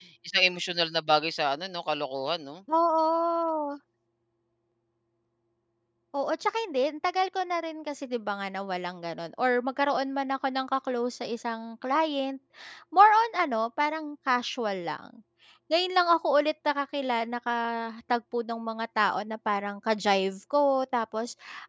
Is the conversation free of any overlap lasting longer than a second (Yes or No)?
Yes